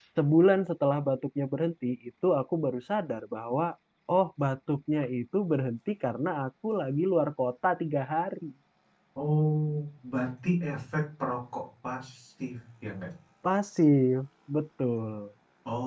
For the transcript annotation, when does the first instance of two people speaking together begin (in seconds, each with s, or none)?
none